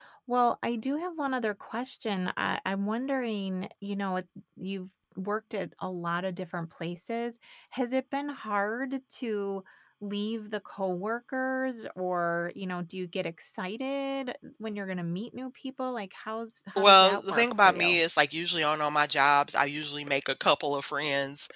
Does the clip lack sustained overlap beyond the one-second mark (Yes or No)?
No